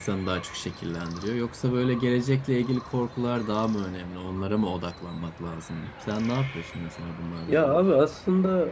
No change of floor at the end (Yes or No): No